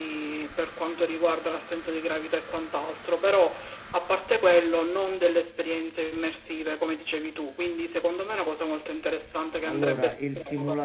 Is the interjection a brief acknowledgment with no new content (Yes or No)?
No